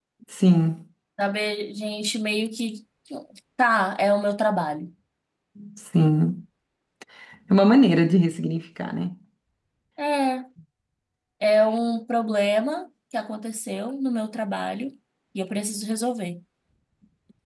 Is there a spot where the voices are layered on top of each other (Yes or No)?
No